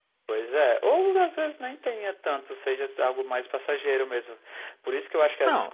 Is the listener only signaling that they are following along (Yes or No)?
Yes